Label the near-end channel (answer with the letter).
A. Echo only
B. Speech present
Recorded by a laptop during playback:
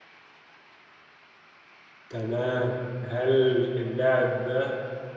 B